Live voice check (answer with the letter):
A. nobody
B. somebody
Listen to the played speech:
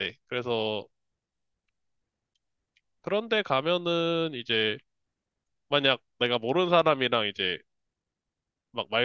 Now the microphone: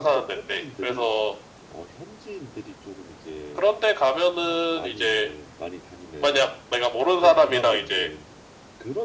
B